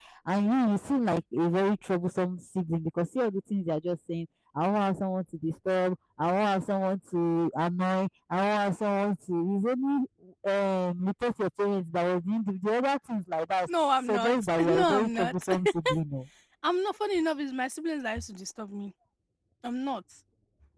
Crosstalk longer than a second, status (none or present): present